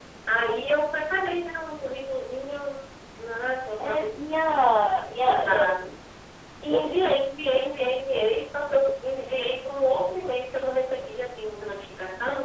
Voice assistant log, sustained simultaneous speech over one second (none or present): present